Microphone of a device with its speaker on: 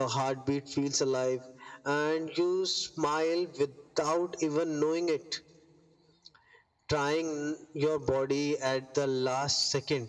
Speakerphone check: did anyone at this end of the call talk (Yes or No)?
No